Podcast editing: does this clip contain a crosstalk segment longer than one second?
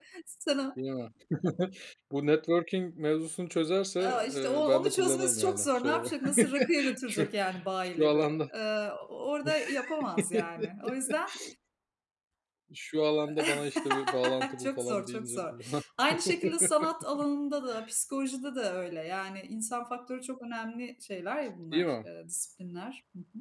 Yes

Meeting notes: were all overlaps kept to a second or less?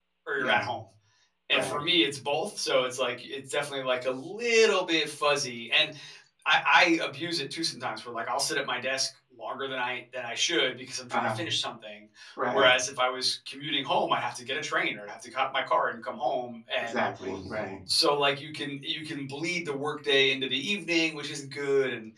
Yes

